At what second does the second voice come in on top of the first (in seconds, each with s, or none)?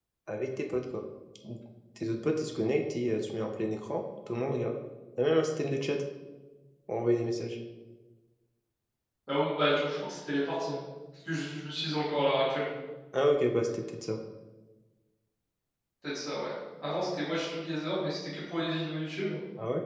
none